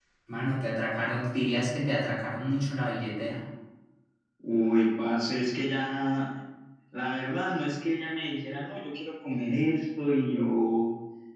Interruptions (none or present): none